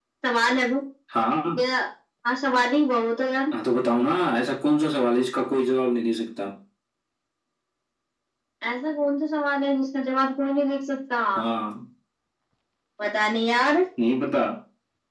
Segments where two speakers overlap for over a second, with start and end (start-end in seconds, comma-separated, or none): none